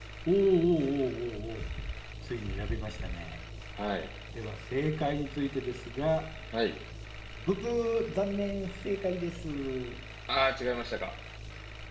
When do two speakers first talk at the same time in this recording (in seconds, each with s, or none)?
none